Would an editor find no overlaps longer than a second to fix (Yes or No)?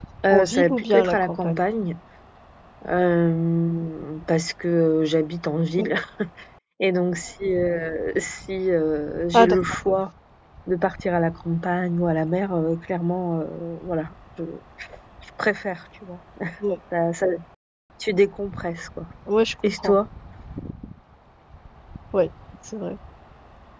No